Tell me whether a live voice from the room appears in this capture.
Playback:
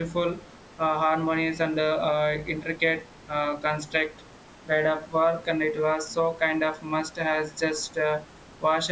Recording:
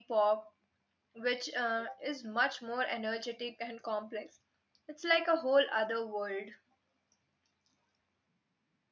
Yes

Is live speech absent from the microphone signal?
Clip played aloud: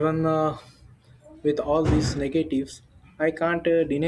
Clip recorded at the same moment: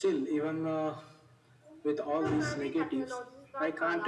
No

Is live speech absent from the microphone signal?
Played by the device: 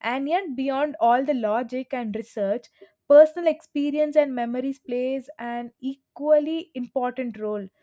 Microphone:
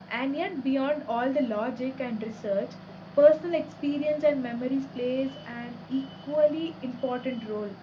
Yes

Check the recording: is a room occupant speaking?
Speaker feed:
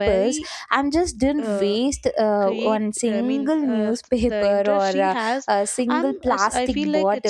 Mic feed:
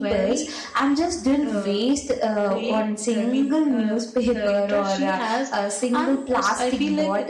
No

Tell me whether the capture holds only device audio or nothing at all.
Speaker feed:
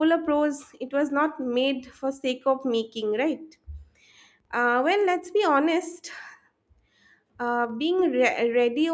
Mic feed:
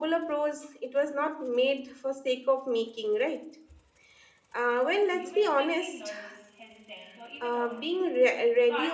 No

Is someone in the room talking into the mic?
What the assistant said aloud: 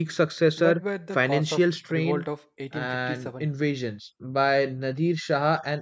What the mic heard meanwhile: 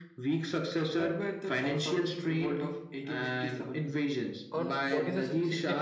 Yes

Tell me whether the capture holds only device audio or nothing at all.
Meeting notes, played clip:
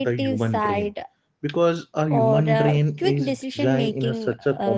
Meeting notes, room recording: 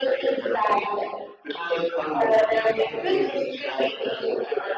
Yes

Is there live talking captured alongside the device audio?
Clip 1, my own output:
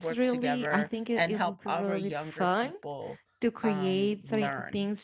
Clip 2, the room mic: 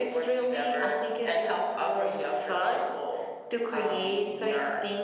No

